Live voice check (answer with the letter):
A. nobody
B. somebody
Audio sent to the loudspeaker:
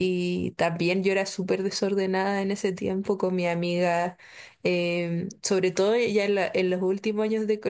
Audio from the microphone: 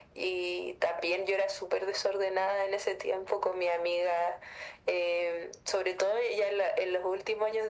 A